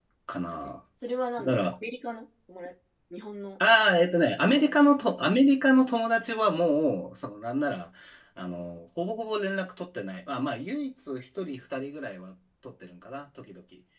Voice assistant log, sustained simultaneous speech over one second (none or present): none